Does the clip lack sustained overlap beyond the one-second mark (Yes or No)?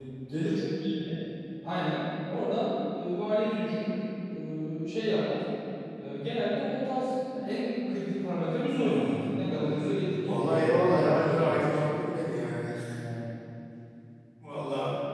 No